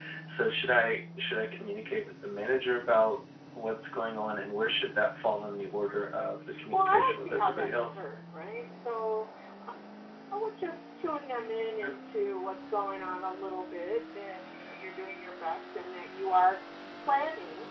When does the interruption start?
6.5 s

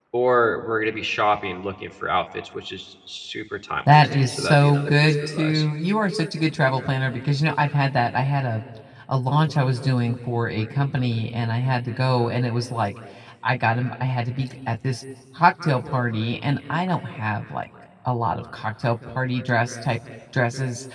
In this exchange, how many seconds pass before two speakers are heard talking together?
3.9 s

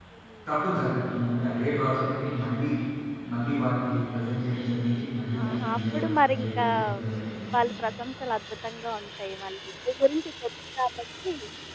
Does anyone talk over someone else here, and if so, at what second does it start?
5.3 s

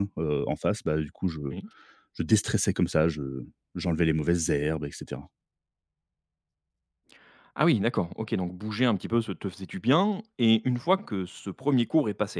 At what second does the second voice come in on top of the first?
none

